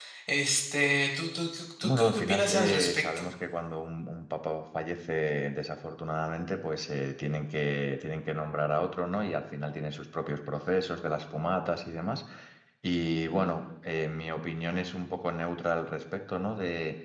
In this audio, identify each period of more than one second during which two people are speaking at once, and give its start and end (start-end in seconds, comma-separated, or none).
1.8-3.3